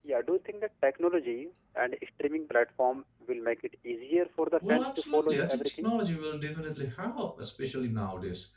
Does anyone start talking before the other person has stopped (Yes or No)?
Yes